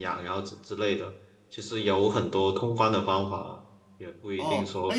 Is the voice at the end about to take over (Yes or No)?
Yes